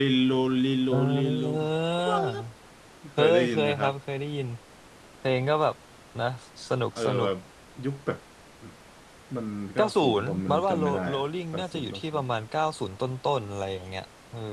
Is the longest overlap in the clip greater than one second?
Yes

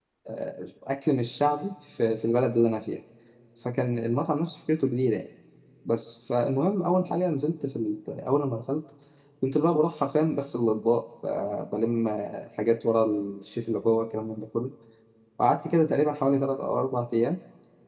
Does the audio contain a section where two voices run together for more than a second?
No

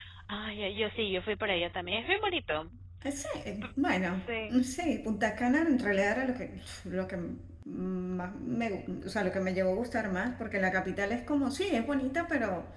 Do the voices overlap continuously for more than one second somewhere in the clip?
No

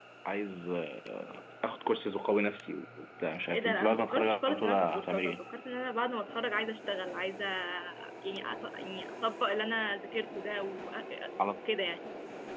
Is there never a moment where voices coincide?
No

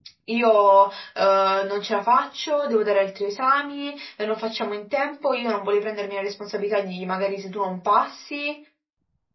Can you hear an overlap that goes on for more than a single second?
No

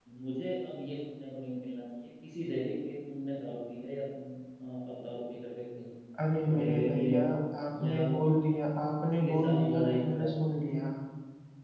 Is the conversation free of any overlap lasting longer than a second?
No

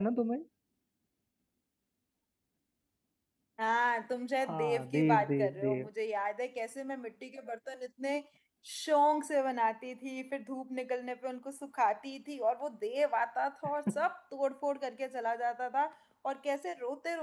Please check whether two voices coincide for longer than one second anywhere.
Yes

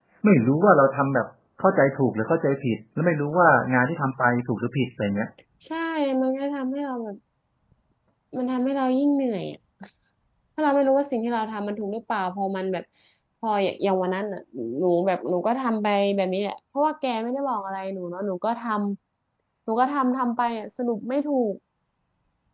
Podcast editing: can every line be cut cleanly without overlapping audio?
Yes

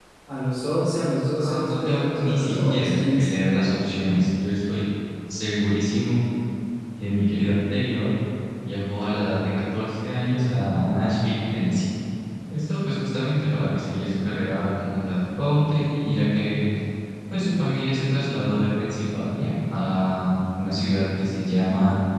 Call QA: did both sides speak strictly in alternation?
No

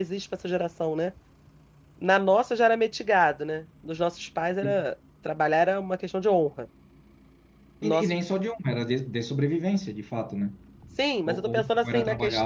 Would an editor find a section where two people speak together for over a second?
Yes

